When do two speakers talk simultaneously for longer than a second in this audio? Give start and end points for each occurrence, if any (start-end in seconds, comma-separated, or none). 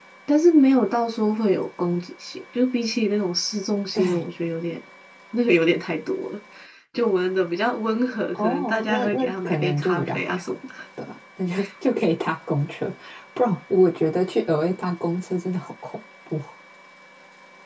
8.3-10.5